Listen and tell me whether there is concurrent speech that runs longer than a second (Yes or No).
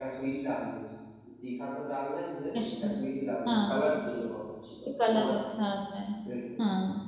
No